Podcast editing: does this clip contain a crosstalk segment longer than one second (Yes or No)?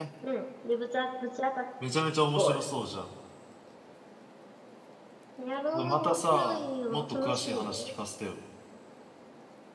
Yes